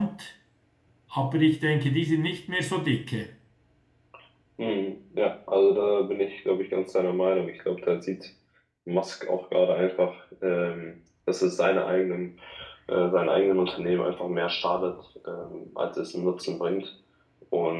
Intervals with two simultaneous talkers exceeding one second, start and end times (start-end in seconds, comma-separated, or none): none